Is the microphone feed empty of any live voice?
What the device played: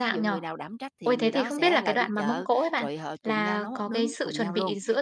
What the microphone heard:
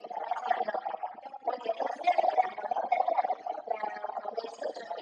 Yes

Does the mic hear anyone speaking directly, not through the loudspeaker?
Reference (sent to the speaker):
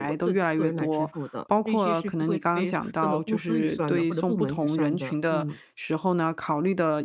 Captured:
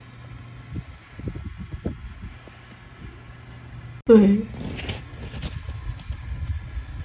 Yes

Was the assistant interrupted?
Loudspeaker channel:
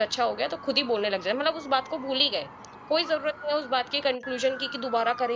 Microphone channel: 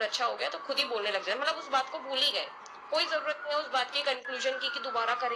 No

